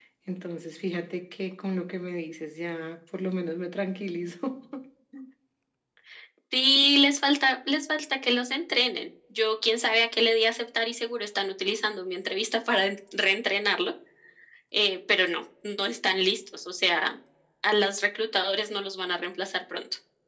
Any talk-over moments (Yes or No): No